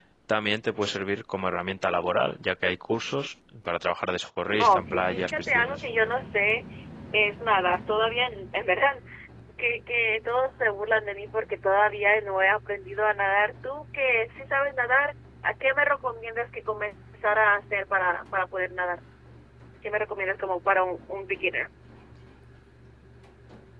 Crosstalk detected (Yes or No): Yes